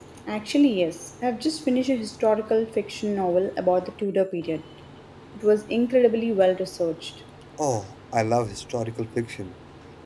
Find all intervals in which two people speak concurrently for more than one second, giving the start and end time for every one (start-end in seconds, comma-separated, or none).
none